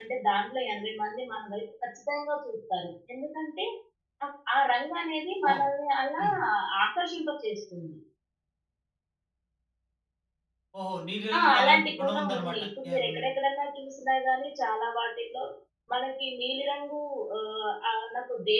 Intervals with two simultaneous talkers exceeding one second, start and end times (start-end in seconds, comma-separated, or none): 11.4-13.1